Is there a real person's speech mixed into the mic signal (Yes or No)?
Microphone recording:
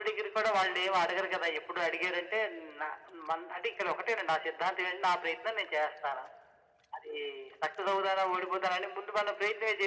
No